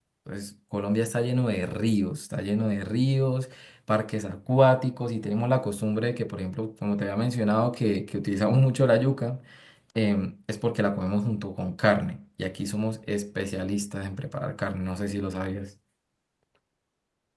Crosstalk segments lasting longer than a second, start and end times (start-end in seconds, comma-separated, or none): none